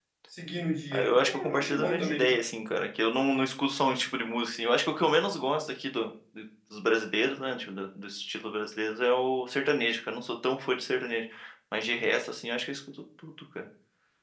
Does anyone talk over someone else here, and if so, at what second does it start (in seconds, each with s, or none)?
0.9 s